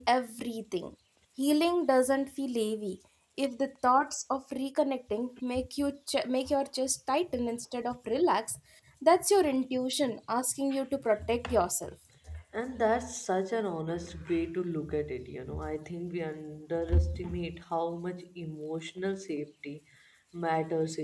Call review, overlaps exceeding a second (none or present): none